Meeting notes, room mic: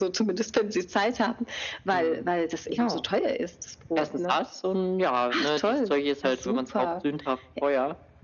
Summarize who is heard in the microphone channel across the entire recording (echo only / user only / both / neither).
echo only